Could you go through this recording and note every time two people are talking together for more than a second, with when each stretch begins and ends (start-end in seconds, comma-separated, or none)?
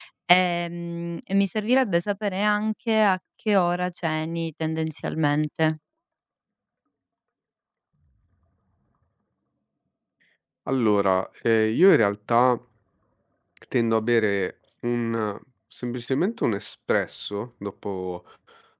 none